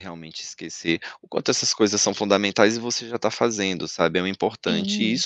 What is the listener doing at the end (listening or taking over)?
listening